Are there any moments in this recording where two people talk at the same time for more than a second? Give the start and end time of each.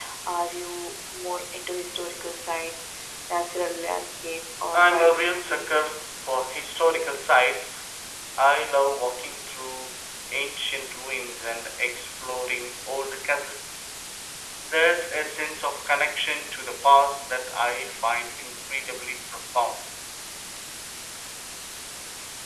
4.8-6.0

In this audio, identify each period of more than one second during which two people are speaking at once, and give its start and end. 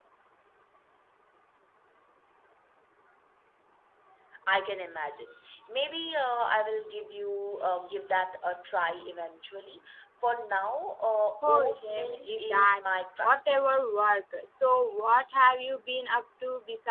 11.4-12.8

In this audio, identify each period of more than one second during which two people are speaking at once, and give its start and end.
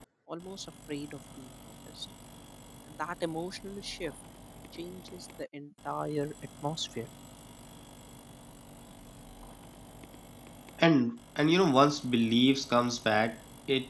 none

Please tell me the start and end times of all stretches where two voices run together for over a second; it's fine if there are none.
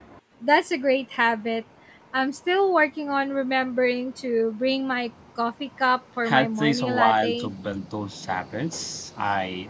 6.2-7.5

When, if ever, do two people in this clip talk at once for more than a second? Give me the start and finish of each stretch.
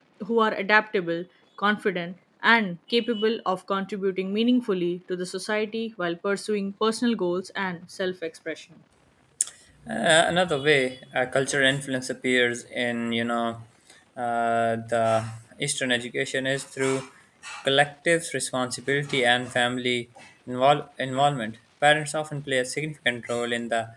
none

